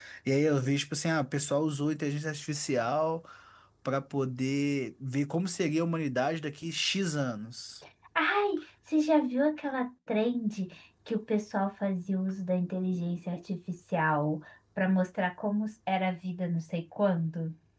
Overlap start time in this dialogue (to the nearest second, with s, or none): none